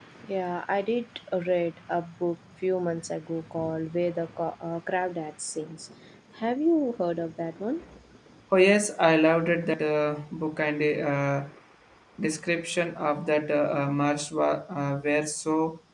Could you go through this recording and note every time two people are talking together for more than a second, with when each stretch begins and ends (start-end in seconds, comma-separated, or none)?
none